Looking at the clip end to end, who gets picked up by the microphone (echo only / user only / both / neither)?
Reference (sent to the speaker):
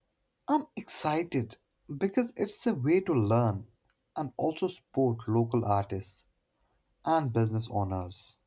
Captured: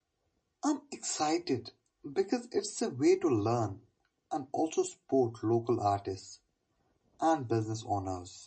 echo only